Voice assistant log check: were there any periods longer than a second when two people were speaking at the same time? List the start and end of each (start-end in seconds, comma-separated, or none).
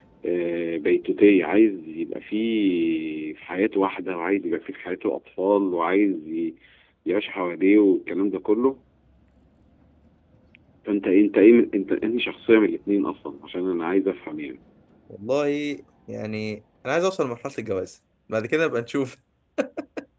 none